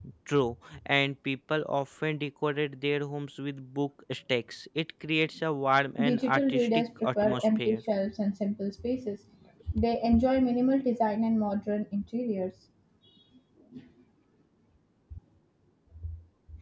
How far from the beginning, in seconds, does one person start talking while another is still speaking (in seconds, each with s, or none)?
6.0 s